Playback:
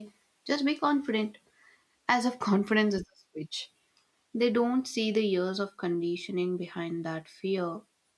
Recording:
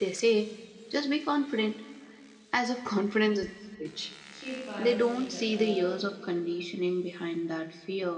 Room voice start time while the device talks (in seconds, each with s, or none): 4.3 s